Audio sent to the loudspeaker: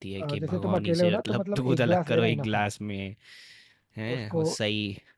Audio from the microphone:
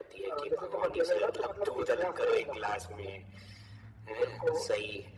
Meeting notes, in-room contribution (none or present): none